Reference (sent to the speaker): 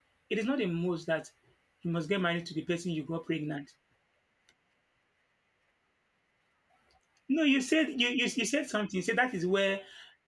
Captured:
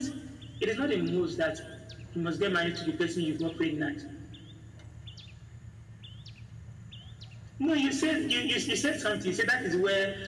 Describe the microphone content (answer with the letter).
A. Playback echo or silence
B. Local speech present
A